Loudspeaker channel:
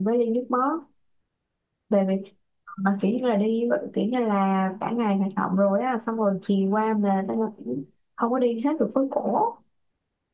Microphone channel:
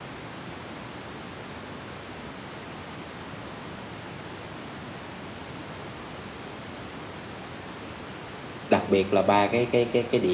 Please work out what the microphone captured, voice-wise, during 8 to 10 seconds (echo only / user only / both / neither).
user only